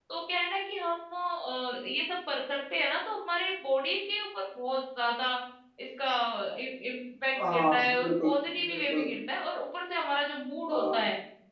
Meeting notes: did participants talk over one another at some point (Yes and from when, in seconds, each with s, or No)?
Yes, from 7.5 s